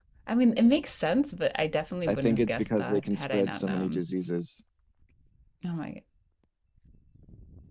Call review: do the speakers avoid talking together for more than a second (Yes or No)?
No